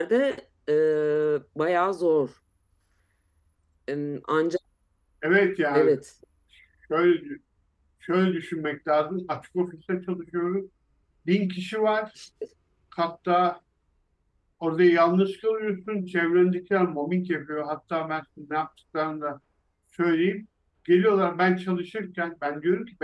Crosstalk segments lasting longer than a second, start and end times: none

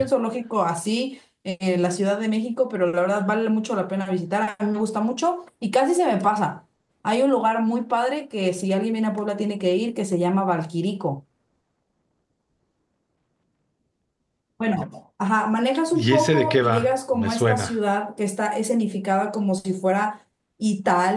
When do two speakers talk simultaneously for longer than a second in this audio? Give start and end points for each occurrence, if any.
15.9-17.7

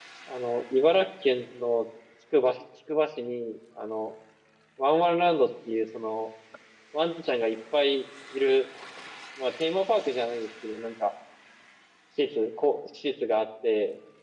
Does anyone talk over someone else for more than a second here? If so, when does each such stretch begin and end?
none

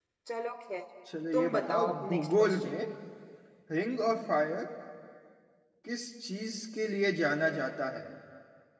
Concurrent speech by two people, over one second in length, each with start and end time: 1.3-2.8

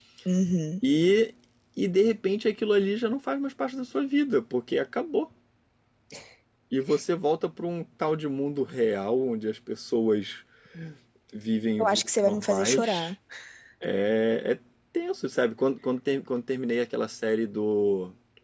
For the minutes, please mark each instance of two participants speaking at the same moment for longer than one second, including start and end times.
11.8-13.1

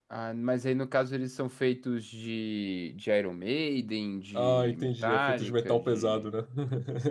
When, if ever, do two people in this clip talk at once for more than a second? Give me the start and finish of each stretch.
4.3-6.3

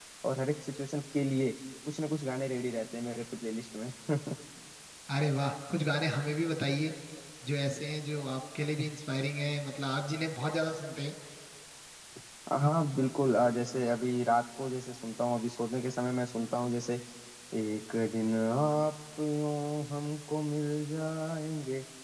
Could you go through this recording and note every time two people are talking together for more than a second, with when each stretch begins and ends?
none

